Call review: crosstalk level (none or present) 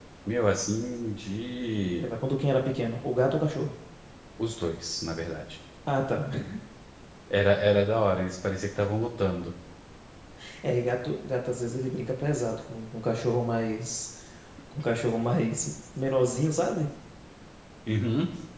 none